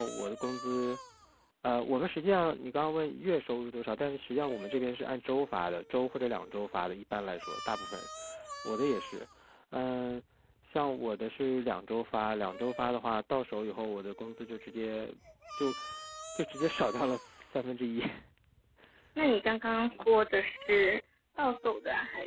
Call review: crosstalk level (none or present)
none